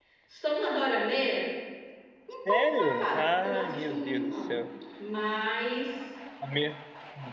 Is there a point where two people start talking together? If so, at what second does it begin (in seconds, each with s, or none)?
2.5 s